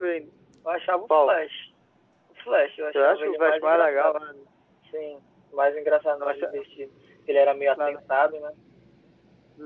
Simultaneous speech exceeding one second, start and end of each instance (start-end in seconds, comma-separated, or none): 2.9-4.2